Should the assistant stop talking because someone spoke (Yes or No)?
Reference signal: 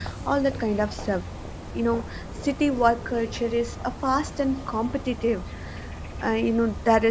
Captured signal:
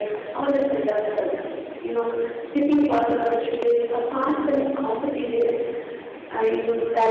No